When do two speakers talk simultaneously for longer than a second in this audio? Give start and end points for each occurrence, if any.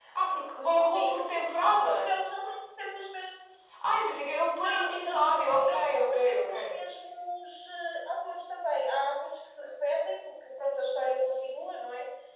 4.6-6.8

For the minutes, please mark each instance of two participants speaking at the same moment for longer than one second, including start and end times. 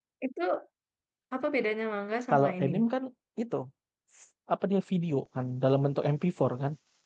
none

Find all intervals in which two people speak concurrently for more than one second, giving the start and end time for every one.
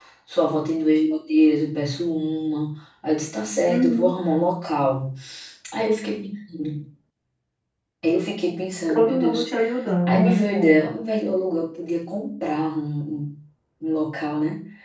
none

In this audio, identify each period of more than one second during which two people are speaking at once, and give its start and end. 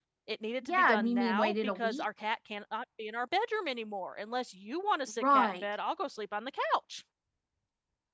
0.6-2.0

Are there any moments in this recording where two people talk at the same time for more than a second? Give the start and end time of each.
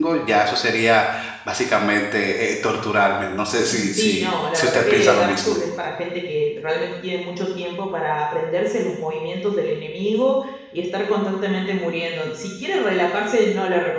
3.7-5.5

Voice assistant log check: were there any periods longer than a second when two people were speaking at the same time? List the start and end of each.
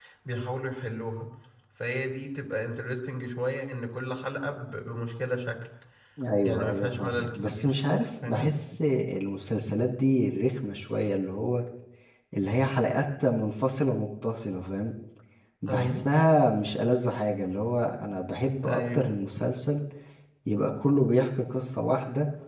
6.4-7.8

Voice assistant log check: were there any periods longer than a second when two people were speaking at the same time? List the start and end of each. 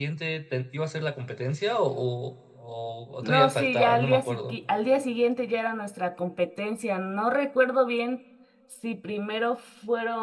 3.2-4.6

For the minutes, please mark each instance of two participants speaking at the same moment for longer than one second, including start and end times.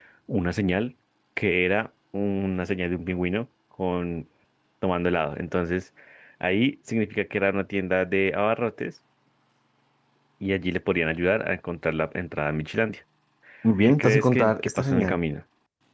13.8-15.2

